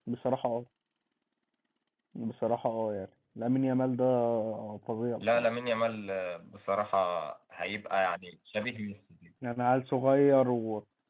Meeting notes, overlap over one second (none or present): none